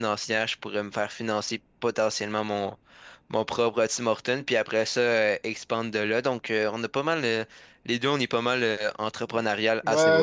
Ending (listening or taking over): taking over